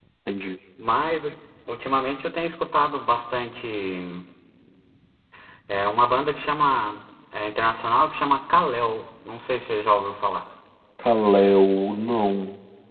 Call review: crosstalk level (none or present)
none